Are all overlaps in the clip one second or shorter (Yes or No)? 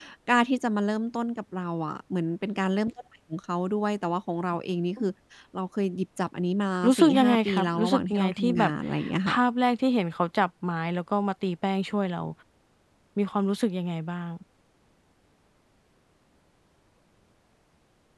No